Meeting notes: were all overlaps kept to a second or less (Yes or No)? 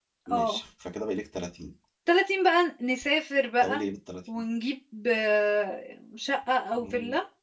Yes